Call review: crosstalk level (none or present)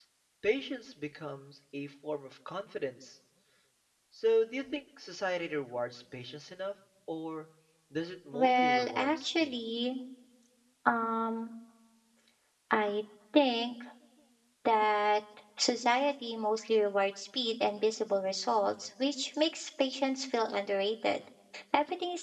present